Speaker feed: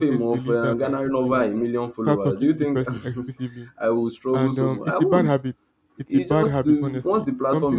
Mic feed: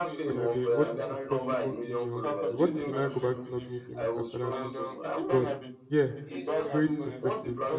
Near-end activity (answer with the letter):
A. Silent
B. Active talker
B